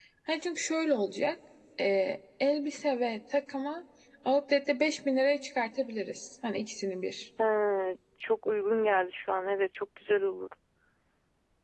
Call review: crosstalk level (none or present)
none